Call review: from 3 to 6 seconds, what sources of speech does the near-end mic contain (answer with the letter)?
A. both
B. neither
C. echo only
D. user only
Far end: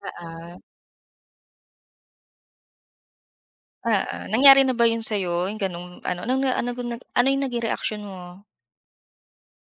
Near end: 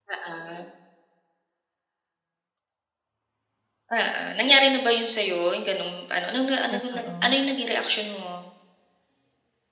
C